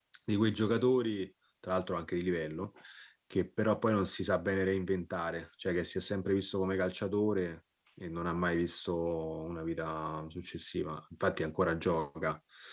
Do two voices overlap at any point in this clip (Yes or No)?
No